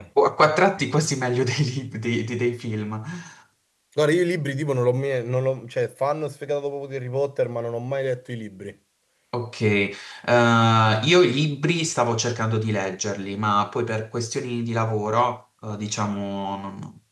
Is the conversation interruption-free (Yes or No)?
Yes